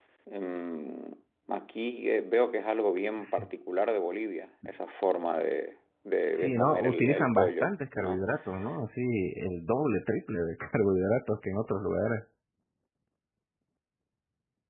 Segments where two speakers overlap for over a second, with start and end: 6.3-8.2

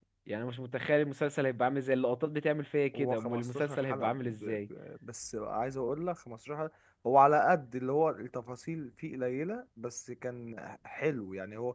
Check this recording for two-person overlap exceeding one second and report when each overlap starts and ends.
2.9-4.6

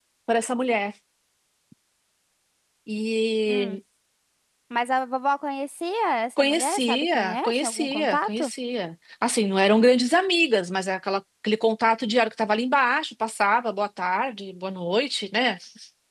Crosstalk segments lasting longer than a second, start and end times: 6.4-8.5

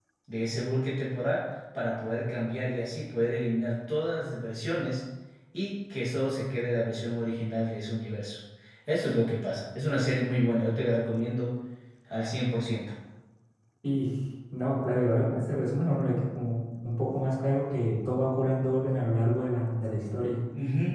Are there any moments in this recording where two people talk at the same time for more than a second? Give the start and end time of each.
none

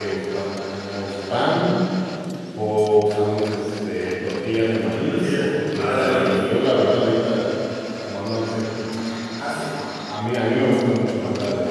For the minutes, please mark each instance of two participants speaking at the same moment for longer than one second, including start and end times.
4.9-6.4

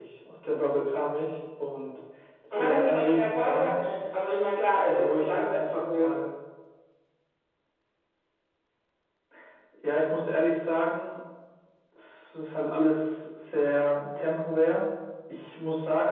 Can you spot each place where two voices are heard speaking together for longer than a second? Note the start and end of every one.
2.5-3.8, 4.8-6.1

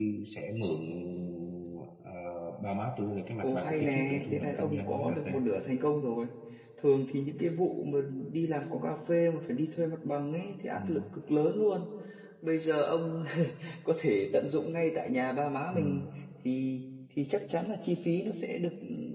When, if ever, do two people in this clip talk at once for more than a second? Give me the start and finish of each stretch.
3.4-5.3

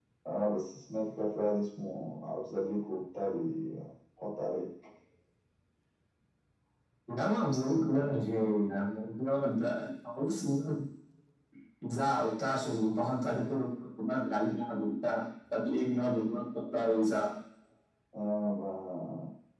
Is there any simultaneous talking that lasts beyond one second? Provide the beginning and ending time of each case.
none

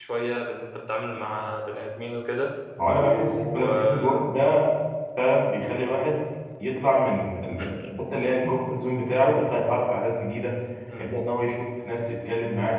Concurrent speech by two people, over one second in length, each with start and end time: 3.0-4.2

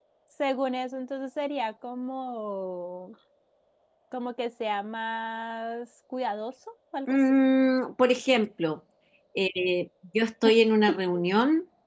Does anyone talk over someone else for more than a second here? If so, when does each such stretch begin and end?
none

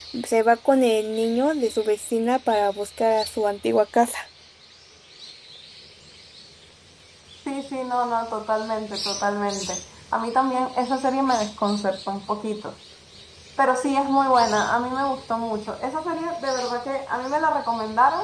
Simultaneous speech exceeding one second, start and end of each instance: none

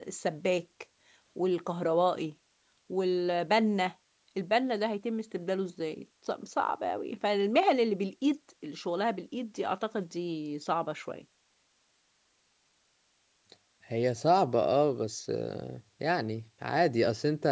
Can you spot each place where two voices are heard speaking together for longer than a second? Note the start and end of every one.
none

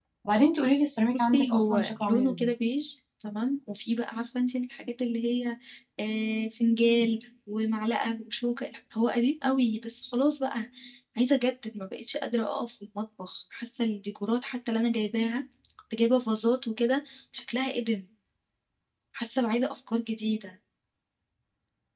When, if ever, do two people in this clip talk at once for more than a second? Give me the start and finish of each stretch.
1.1-2.5

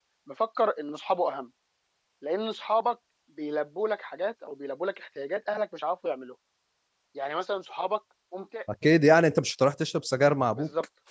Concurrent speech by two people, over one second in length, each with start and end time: none

